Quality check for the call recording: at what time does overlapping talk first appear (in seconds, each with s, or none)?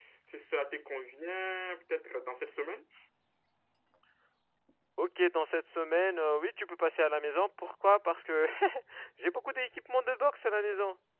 none